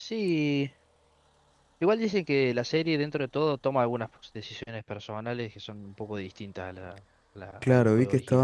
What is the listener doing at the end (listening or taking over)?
taking over